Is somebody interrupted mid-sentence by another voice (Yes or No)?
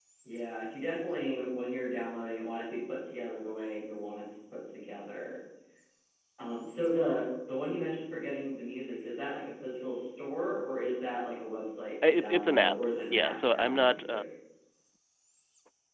Yes